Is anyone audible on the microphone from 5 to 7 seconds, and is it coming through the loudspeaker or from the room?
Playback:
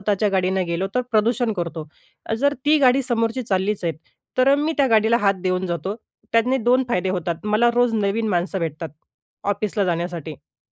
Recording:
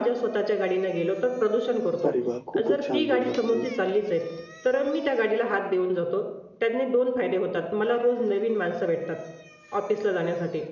echo only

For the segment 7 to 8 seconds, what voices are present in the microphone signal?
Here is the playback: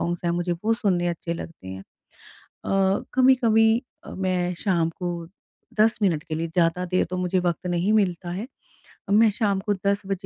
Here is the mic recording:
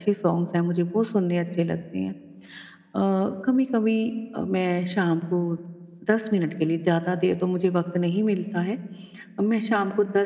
echo only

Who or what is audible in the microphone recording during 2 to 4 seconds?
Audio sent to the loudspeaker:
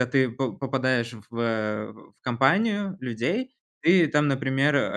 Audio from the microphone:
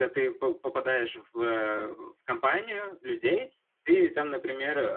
echo only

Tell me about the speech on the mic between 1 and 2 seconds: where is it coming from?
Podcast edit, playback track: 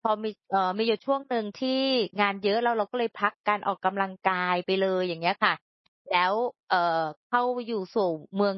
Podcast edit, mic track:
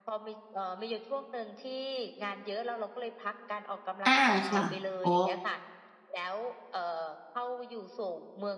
echo only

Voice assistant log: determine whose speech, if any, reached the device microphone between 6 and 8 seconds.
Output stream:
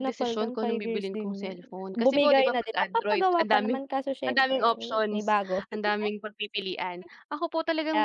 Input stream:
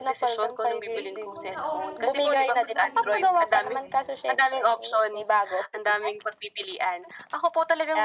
echo only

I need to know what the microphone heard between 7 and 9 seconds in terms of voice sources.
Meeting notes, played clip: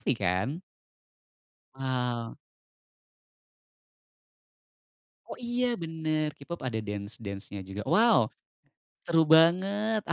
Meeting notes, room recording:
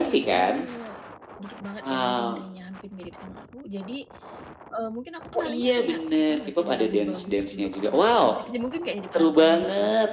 both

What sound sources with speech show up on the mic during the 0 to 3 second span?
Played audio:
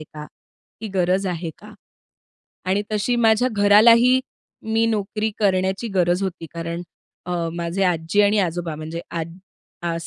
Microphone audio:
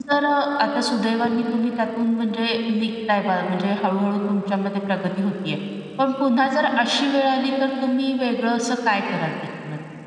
user only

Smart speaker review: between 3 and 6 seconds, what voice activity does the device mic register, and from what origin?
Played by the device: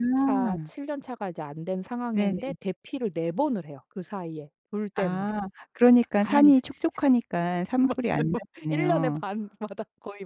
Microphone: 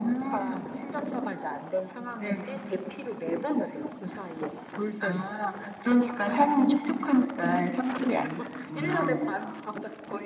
echo only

